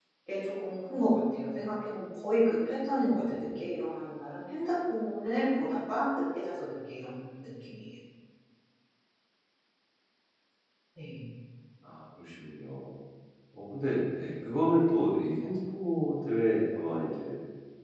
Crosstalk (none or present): none